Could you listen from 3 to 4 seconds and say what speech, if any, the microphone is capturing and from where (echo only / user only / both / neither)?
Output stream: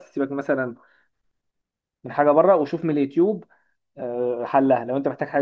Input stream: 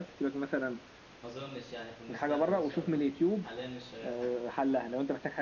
both